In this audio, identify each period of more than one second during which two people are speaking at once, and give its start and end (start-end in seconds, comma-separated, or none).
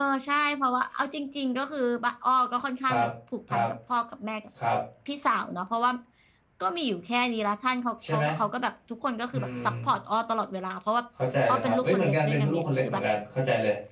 11.5-13.0